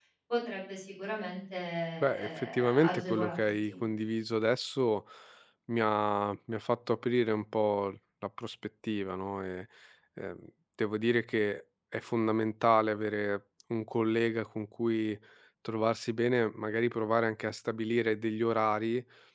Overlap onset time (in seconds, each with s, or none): 2.2 s